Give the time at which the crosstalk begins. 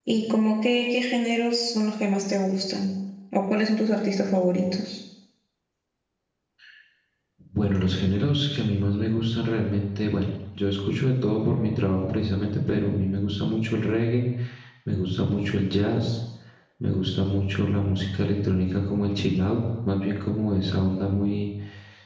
none

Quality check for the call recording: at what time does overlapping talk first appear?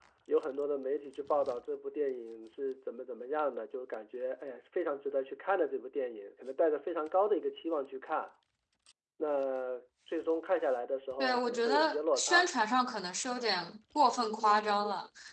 11.2 s

